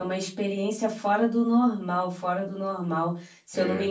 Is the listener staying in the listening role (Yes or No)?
Yes